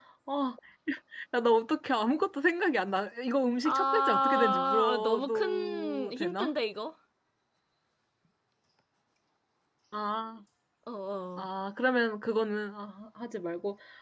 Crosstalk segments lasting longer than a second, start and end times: 3.6-6.5

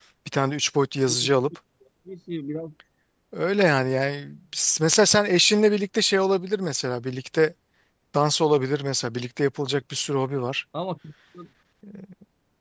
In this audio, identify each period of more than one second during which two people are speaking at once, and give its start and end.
none

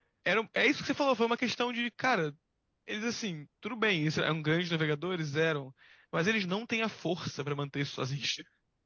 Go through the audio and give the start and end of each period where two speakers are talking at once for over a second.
none

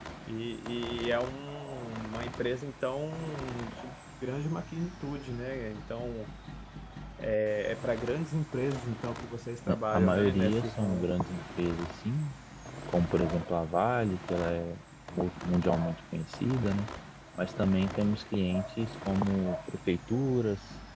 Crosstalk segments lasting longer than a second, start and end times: 9.7-11.1

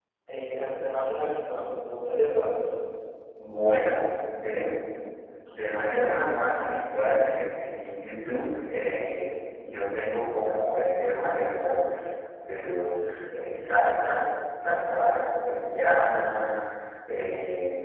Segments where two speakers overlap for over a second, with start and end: none

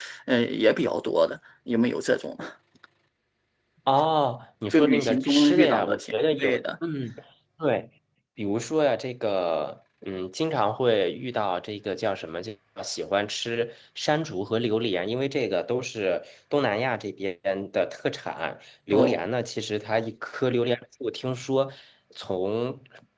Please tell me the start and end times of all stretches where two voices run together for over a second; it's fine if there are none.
4.7-6.6

